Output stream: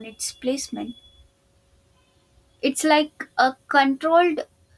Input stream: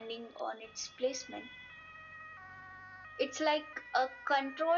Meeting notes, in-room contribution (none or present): none